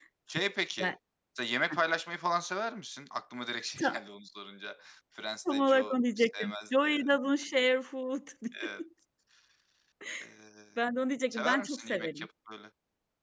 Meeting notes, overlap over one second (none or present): present